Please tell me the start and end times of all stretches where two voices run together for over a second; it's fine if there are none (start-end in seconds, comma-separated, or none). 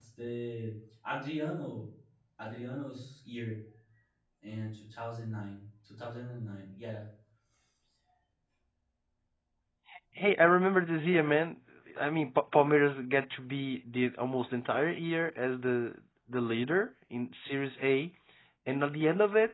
none